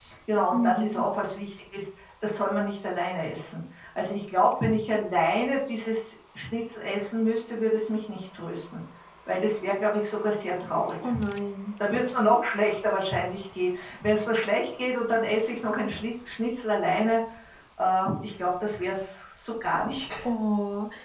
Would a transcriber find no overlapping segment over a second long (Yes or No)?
Yes